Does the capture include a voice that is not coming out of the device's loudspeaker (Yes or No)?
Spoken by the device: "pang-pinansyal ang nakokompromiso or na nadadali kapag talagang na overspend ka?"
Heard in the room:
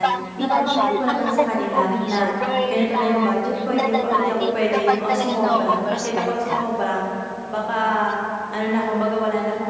Yes